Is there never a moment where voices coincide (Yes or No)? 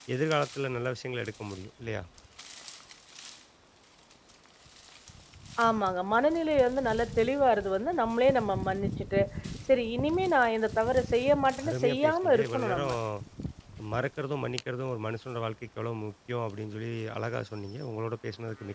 No